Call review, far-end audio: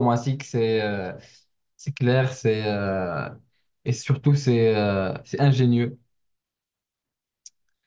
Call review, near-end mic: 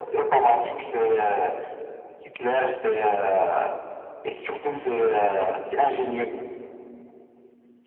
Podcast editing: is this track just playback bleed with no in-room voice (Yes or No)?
Yes